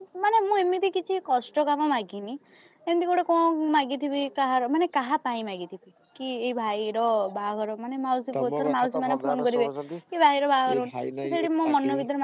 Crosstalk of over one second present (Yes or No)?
Yes